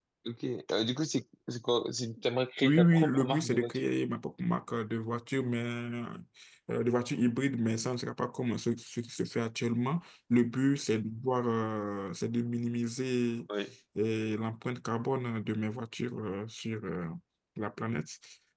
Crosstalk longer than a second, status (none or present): present